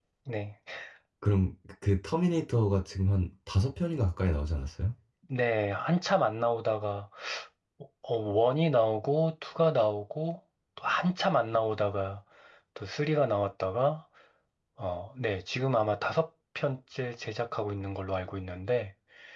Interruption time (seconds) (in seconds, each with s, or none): none